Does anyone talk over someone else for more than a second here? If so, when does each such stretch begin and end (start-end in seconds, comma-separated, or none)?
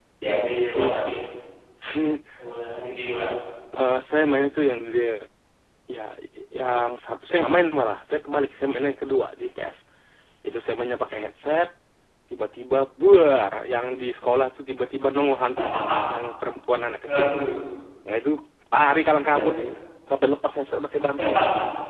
none